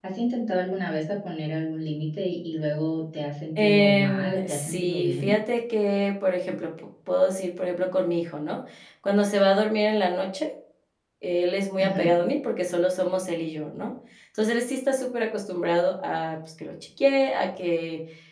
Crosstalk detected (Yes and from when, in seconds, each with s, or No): Yes, from 3.6 s